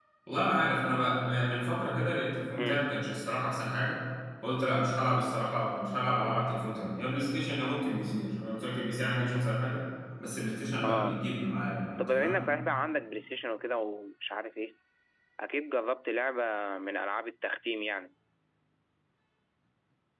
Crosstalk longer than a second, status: none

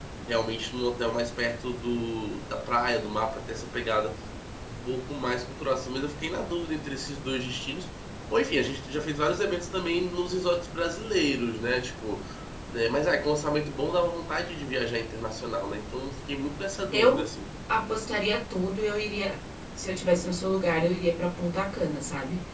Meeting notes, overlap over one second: none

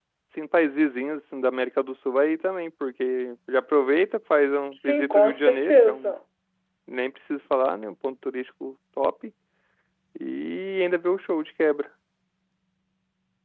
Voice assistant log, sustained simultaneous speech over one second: present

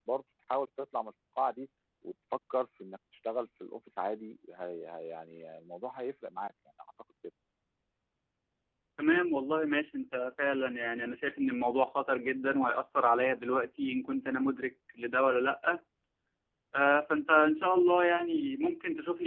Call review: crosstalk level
none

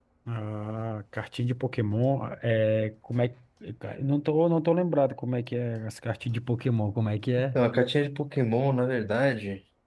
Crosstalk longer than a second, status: none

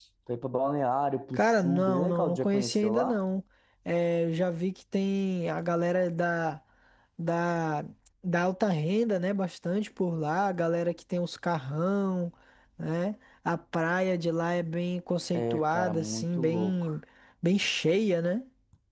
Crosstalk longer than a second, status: present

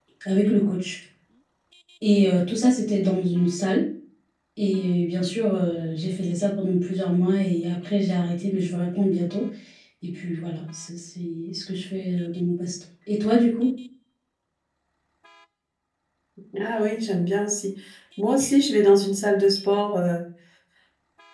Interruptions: none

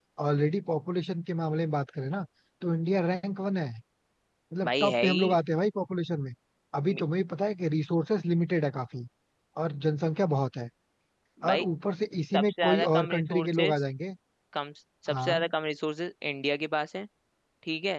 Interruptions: present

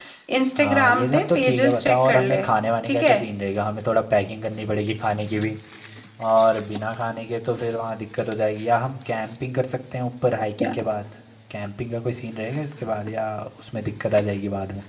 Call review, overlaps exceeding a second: present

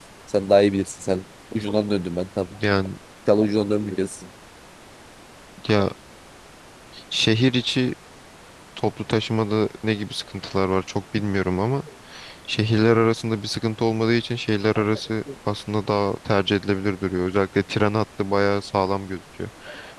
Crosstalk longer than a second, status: none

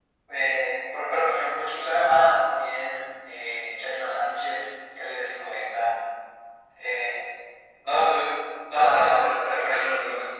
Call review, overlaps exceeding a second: present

